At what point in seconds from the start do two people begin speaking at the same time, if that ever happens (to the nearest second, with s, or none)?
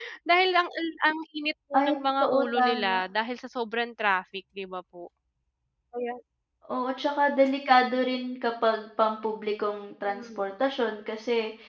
2 s